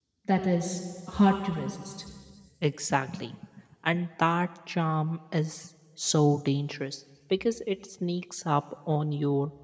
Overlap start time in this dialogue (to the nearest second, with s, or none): none